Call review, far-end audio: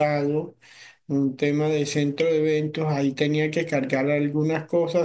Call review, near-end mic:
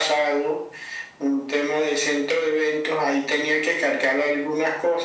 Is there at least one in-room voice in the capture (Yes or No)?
No